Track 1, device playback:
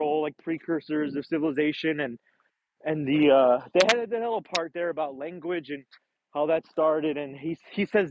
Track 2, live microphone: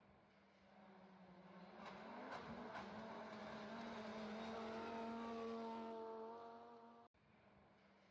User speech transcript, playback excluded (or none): none